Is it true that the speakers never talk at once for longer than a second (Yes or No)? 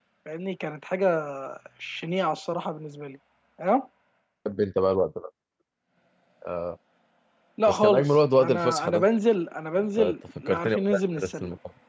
No